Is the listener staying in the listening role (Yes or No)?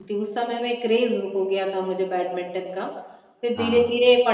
Yes